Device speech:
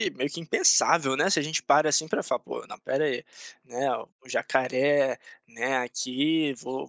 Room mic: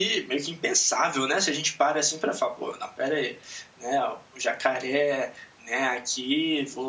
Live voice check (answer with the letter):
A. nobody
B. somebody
A